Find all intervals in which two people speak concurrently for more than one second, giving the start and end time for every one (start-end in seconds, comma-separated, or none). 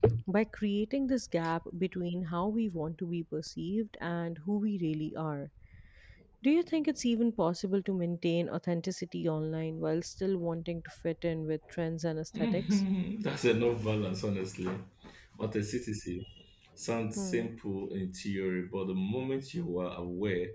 none